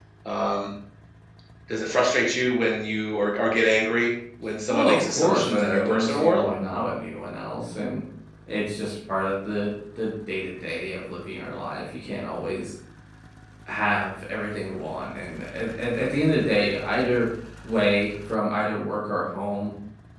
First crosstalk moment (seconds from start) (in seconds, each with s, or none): 4.7 s